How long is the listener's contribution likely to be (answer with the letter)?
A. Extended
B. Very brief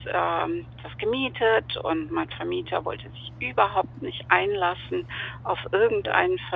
B